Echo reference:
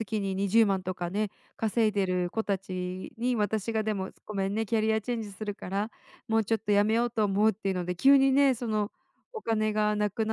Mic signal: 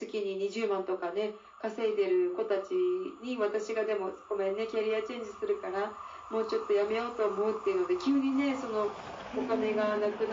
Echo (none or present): present